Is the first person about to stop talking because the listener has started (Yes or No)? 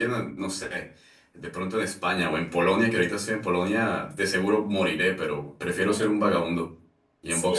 Yes